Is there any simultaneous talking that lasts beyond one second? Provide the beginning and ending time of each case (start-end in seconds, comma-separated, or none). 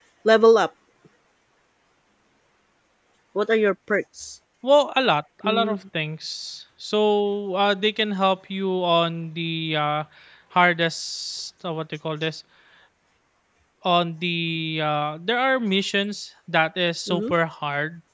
none